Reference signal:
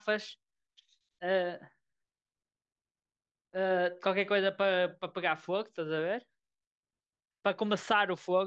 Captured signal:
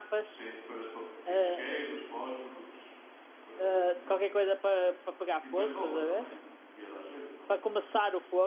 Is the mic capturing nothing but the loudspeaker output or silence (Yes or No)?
No